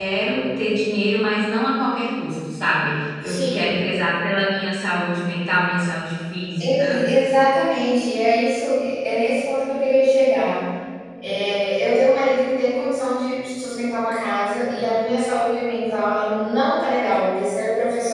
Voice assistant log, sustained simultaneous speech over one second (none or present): none